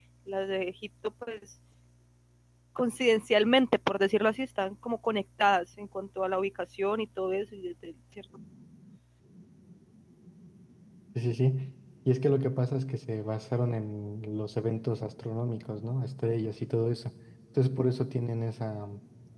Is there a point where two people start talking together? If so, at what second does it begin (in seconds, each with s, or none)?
none